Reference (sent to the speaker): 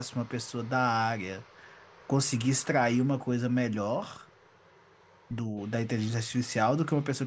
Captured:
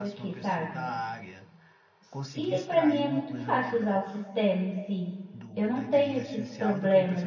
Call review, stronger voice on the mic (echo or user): user